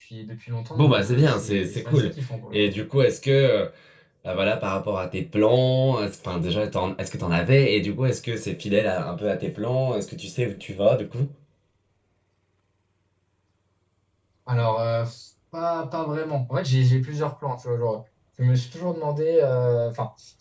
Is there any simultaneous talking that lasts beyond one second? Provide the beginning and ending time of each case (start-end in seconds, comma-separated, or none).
0.7-2.1